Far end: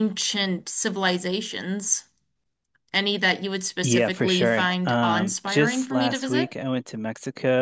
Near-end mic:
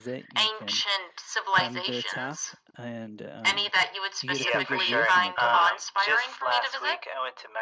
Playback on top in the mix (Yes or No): Yes